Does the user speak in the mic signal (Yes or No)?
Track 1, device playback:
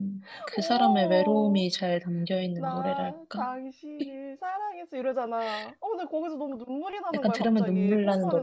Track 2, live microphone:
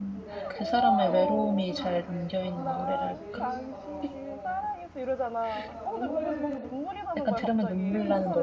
Yes